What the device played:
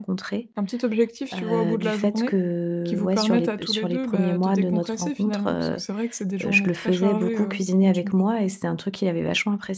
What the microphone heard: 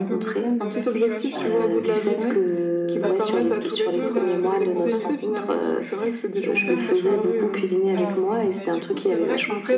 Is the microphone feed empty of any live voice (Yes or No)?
No